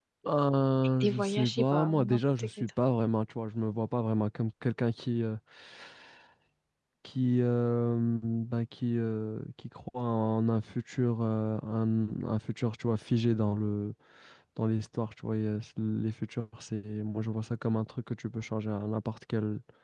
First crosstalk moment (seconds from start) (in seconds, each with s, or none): 1.0 s